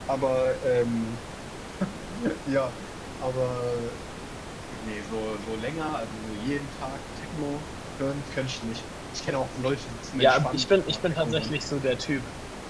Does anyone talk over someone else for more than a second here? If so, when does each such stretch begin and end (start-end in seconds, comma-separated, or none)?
10.2-11.5